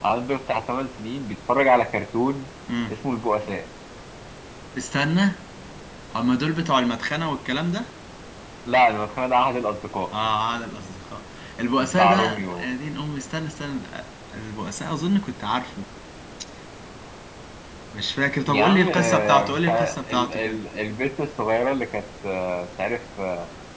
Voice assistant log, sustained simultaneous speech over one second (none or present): present